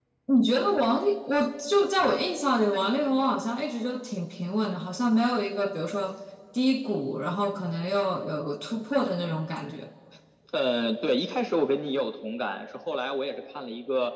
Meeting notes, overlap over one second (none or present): none